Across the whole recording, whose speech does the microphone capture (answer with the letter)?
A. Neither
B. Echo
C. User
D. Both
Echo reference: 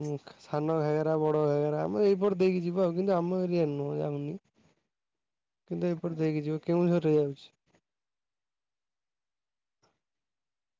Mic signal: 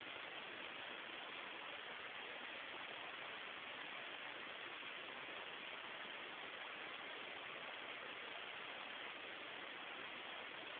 A